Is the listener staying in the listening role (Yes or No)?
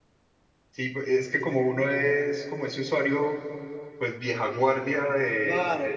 No